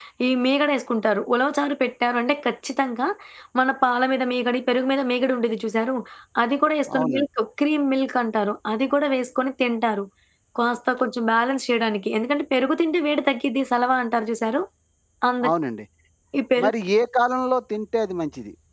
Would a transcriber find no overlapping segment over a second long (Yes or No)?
Yes